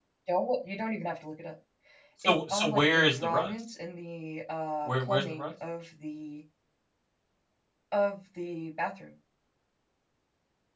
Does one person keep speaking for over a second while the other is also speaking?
Yes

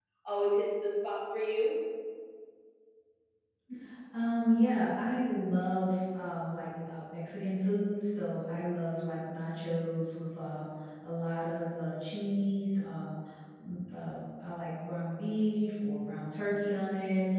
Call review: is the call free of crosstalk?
Yes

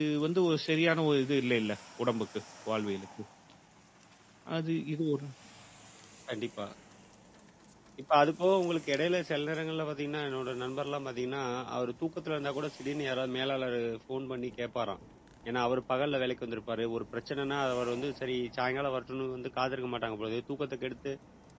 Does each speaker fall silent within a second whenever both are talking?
Yes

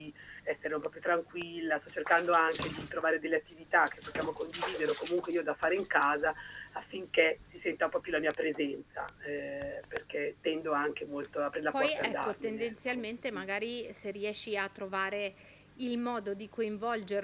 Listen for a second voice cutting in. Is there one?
Yes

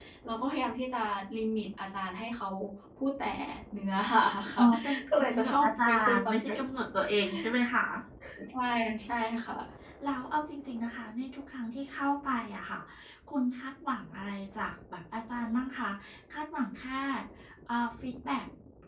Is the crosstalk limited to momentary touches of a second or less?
No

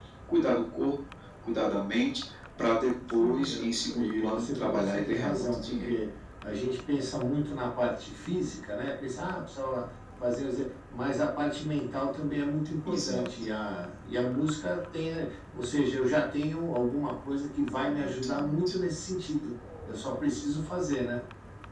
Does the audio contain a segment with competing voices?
Yes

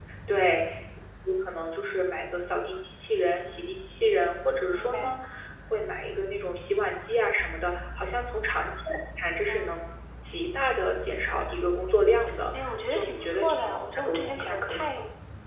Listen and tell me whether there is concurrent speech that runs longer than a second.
Yes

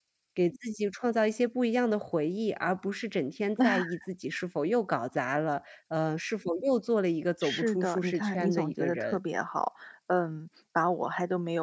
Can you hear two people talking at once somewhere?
Yes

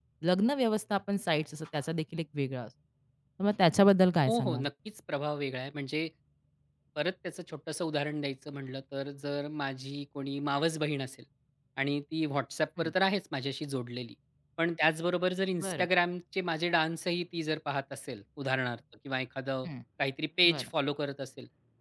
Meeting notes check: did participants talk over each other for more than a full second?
No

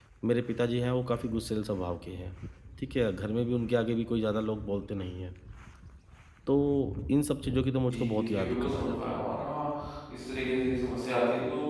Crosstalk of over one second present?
Yes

